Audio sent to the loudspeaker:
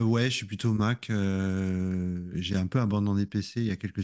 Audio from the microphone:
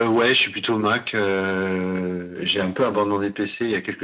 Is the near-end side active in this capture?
No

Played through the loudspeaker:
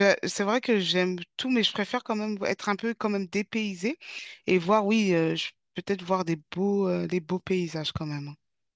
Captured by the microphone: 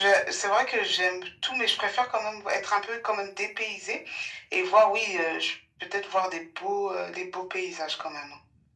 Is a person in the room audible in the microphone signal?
No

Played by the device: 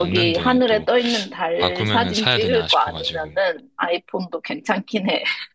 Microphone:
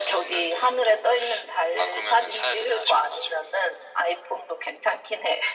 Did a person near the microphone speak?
No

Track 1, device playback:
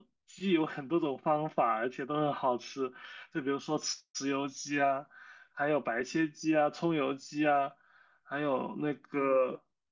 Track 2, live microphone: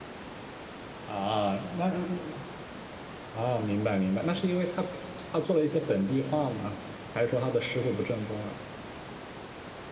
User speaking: Yes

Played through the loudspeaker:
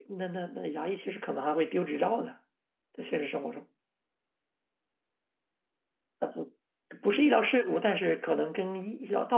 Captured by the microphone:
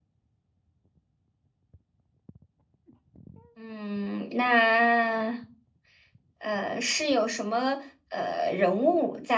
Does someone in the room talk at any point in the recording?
Yes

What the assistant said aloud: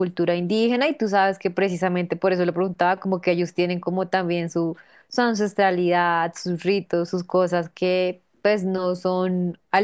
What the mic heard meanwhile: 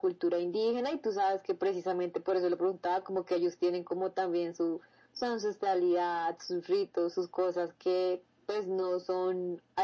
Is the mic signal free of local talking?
Yes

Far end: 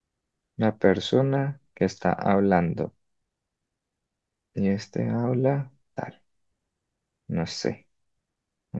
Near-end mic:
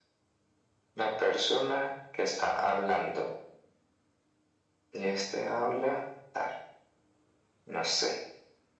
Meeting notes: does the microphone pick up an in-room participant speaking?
No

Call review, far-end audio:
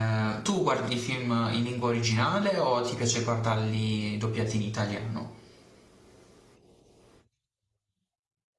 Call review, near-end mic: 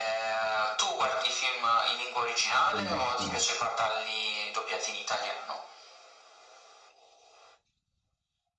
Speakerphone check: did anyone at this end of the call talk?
Yes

